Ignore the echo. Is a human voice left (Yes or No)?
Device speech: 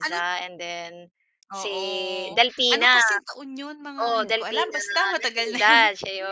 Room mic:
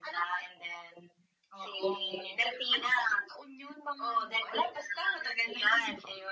No